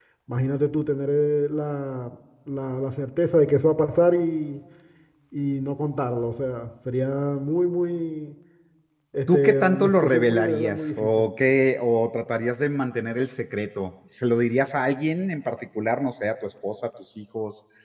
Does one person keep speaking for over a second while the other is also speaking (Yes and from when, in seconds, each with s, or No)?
Yes, from 9.3 s